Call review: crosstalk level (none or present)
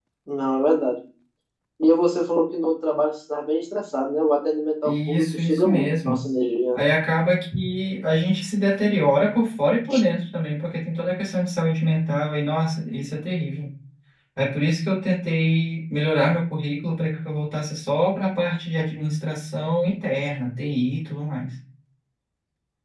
present